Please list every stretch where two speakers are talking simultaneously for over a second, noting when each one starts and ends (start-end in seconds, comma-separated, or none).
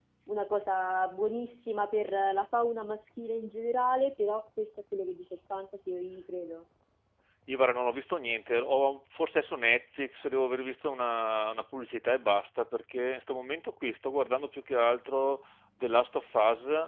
none